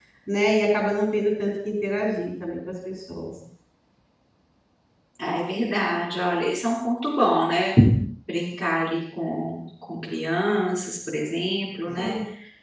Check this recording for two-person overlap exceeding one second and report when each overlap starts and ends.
none

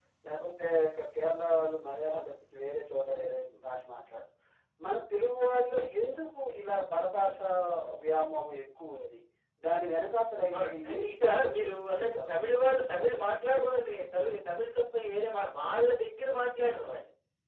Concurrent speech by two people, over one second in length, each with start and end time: 10.5-12.4

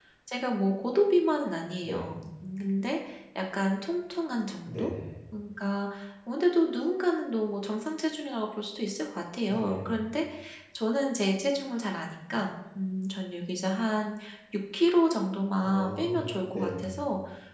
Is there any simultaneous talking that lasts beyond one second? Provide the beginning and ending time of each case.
15.6-16.9

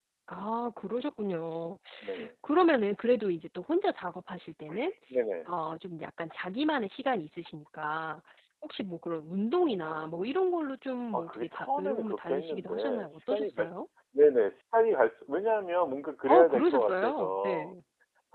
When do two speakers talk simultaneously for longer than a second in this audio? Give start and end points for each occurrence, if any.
11.1-13.7, 16.3-17.7

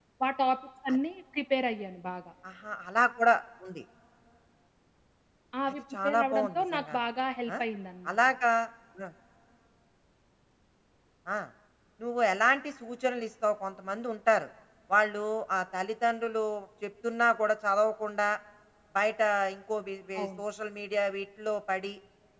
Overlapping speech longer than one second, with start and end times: 5.7-7.0

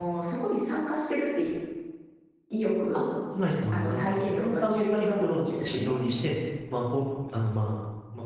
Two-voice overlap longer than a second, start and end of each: 3.7-6.0

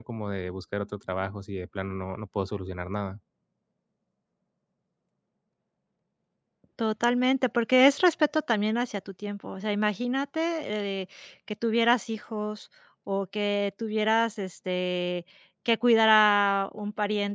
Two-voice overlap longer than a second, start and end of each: none

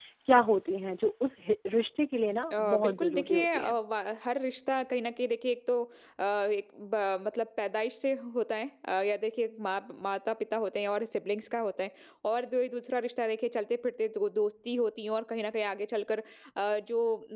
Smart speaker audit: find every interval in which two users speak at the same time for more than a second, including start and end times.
2.5-3.7

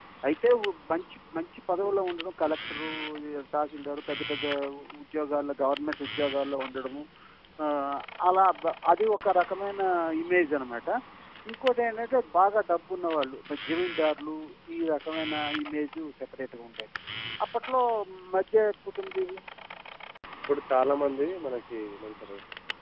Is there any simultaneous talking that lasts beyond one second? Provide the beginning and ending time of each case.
none

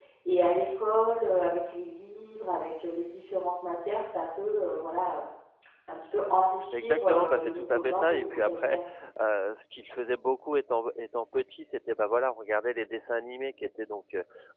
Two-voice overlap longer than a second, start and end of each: 6.7-8.8

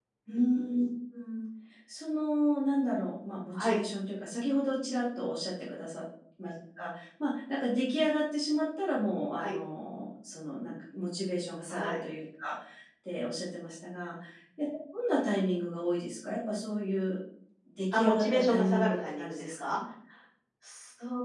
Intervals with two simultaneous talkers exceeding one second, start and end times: 17.9-19.8

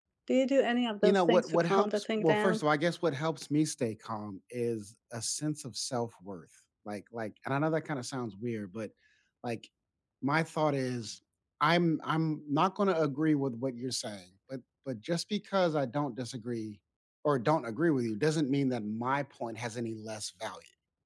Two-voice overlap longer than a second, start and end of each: 1.0-2.6

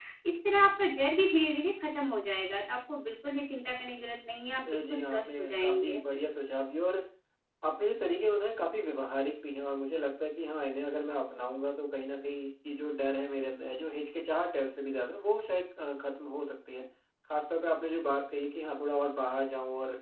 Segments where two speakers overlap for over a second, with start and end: 4.7-6.0

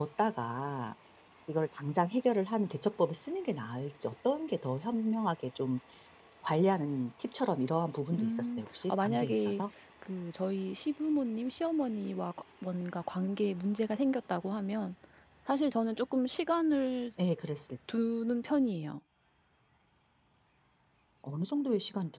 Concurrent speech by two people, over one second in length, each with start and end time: 8.2-9.6

